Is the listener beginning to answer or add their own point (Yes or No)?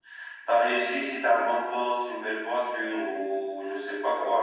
No